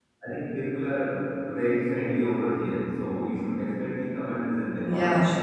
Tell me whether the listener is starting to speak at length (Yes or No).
Yes